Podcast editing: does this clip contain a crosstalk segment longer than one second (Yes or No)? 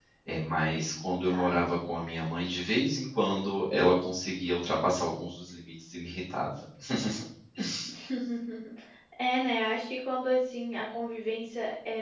No